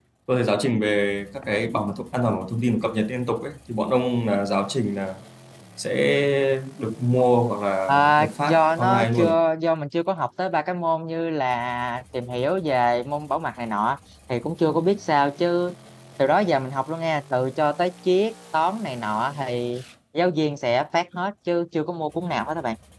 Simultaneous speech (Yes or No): Yes